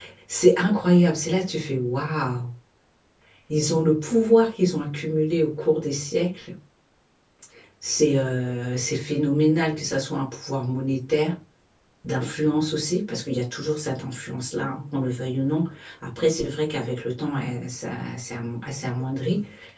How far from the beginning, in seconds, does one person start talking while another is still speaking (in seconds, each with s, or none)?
none